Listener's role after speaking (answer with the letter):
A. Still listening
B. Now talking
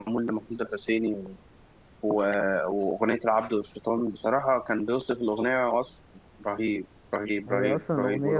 B